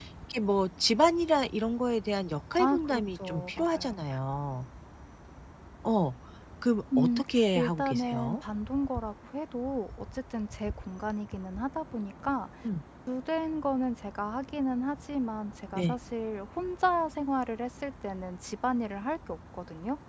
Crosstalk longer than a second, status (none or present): present